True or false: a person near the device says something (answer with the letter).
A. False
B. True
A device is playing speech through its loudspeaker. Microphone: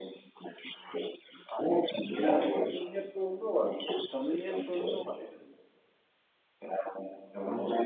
B